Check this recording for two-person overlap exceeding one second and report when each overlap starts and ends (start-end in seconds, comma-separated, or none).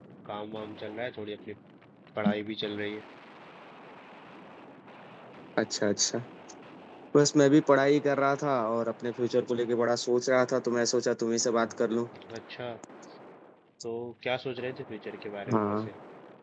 none